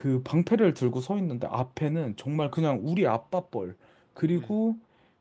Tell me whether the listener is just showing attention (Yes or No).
Yes